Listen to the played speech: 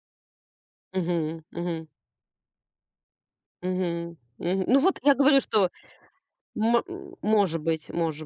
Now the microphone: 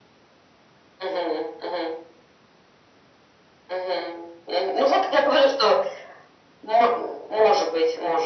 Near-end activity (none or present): none